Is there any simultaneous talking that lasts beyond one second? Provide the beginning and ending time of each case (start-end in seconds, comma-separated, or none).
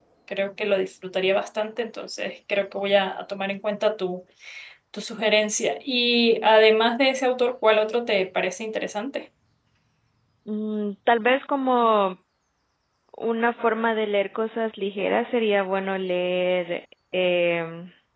none